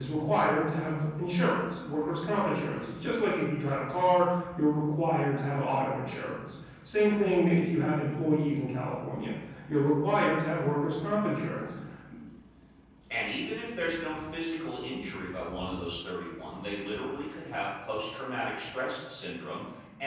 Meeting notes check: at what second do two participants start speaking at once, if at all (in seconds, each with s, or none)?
none